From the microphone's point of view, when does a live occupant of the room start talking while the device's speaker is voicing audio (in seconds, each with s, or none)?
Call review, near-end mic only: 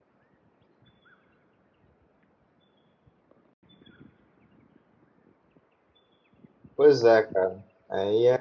6.8 s